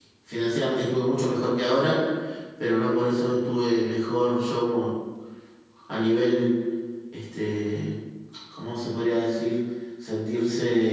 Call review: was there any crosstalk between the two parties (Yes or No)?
No